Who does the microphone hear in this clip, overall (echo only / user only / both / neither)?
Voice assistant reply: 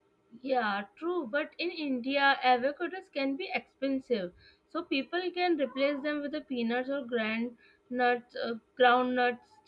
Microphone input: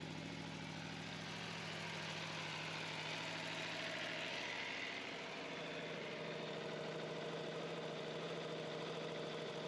neither